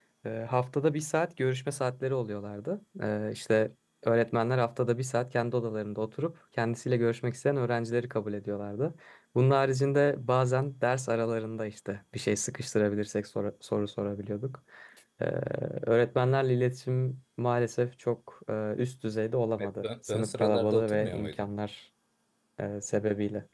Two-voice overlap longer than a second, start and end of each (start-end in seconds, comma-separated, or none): 19.6-21.5